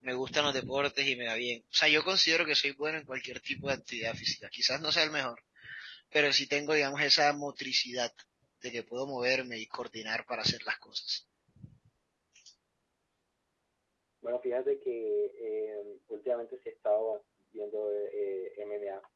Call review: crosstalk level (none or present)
none